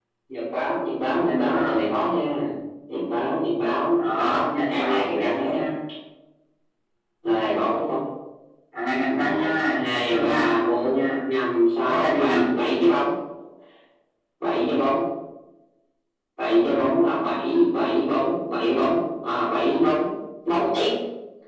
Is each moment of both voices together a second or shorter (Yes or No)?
No